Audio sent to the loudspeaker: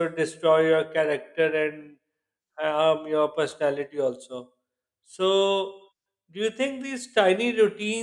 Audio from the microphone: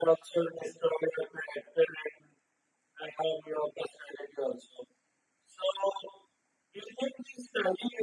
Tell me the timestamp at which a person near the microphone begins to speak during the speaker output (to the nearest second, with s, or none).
none